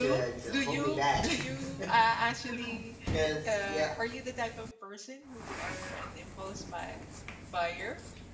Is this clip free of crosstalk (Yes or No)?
No